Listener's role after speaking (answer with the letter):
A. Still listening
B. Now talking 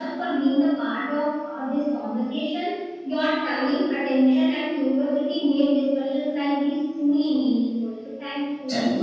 B